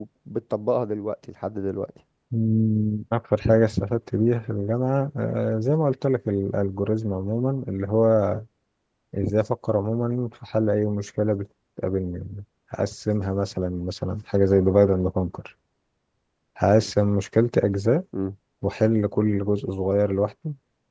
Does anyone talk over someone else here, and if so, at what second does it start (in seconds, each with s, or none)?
none